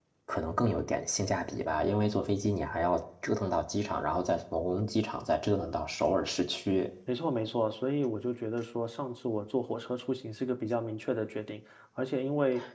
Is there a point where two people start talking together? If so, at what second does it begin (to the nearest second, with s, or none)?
none